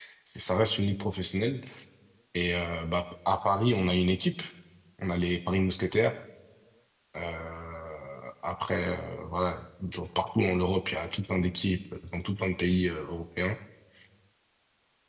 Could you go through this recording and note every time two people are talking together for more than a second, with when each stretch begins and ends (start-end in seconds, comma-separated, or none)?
none